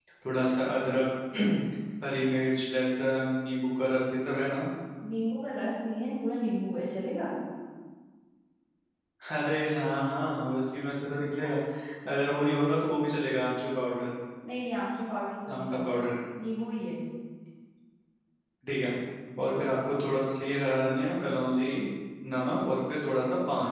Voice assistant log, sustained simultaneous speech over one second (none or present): none